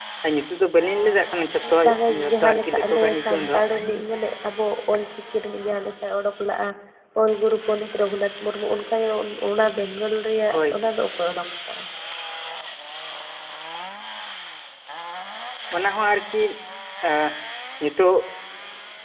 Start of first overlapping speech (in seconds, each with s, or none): 1.6 s